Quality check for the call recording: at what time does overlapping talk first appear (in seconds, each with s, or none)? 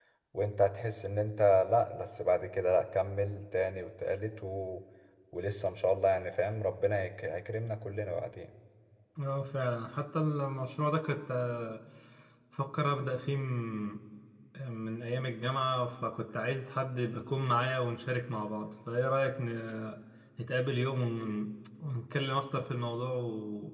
none